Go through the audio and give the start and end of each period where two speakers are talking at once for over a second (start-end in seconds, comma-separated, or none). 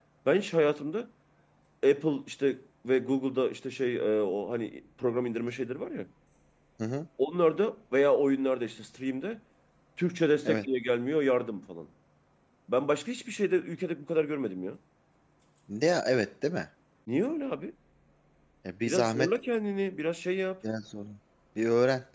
none